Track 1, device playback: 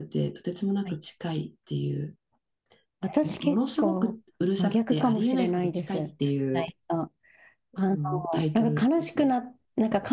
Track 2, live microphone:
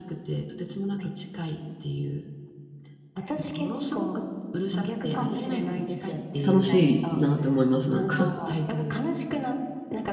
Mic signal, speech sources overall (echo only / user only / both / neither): both